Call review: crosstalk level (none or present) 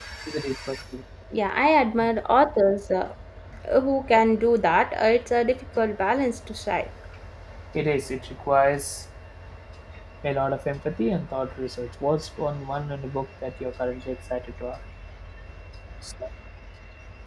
none